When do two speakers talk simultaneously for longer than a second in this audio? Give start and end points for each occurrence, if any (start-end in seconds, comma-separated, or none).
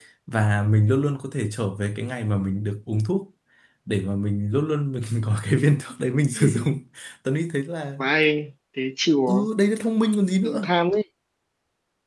none